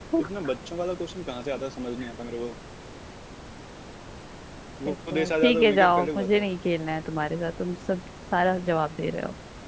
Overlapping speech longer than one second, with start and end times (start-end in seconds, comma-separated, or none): 4.9-6.4